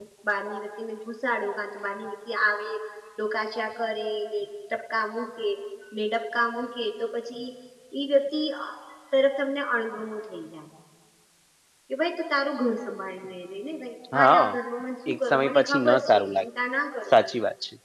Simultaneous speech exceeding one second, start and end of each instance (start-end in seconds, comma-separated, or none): 15.1-16.5